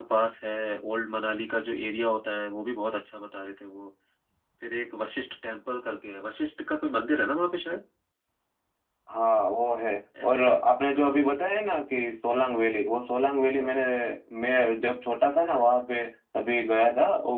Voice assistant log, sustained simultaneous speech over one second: none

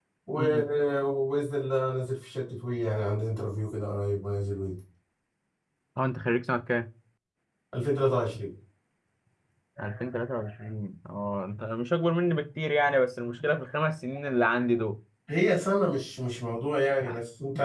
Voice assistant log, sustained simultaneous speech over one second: none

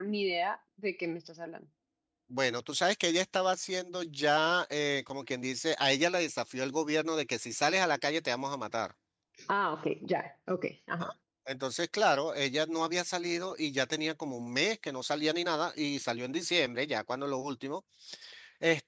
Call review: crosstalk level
none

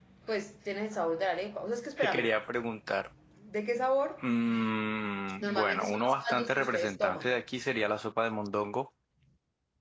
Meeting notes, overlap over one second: present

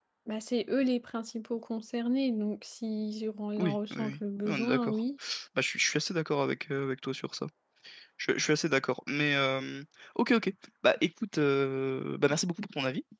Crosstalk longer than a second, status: present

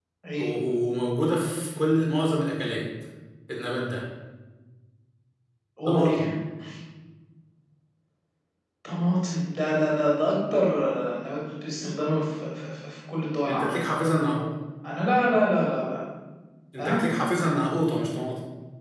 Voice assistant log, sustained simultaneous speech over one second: none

